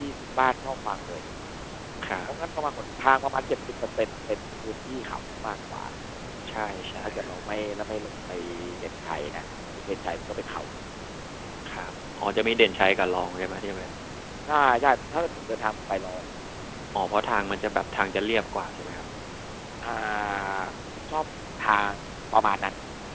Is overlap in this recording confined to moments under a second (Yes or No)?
Yes